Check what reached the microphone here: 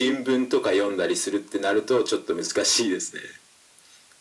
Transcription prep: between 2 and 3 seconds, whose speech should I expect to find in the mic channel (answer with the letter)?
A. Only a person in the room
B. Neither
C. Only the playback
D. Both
C